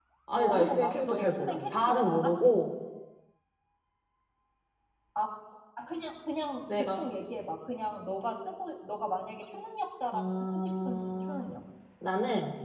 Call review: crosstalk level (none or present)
present